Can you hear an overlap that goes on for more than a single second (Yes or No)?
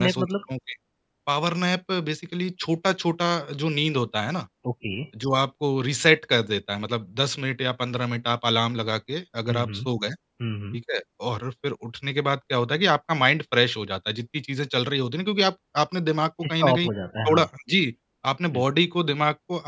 No